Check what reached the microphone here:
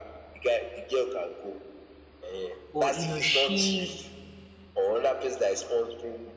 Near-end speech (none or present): present